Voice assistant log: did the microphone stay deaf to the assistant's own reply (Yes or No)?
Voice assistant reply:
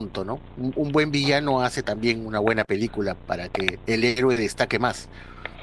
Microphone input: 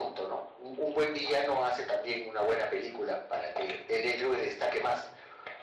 No